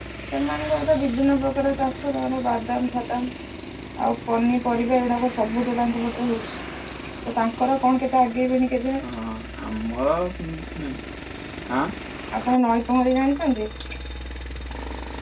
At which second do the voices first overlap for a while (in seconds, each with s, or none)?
none